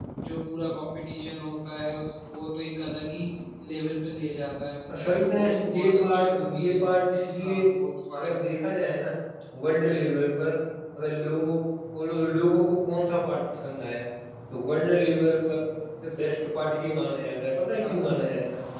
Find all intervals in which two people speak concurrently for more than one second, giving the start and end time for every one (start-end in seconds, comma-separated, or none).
4.9-6.7